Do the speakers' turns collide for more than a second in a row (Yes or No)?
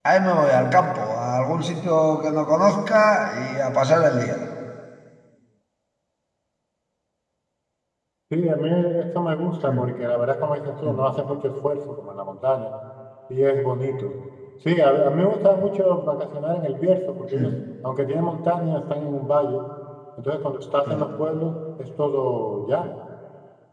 No